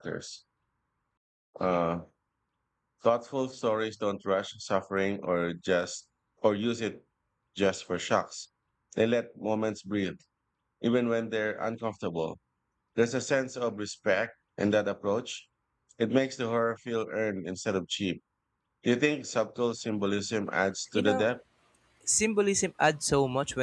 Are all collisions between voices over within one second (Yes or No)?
Yes